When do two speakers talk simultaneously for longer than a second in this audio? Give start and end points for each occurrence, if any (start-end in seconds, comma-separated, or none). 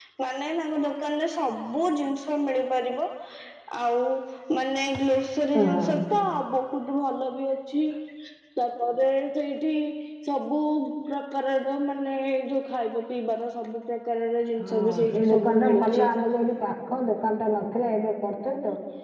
14.6-16.1